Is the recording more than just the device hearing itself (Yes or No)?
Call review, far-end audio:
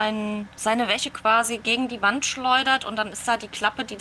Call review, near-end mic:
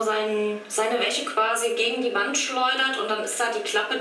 No